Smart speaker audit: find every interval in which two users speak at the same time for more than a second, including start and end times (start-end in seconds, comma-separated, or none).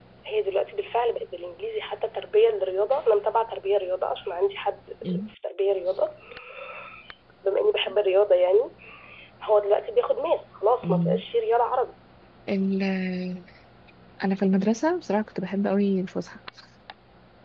none